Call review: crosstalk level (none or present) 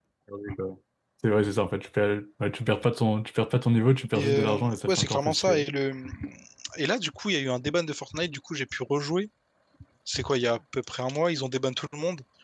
present